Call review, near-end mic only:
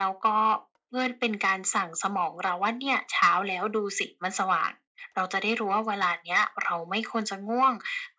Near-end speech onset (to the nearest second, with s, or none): none